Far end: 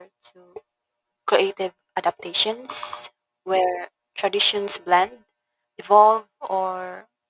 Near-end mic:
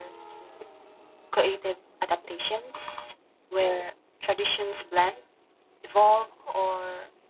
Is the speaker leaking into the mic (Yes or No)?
Yes